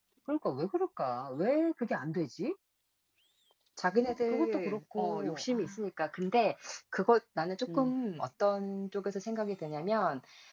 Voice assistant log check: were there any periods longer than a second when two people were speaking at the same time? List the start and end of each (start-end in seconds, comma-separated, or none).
4.3-5.8